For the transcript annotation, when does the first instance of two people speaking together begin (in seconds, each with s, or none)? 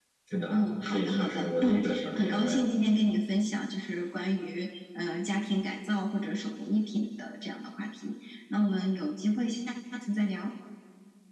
0.5 s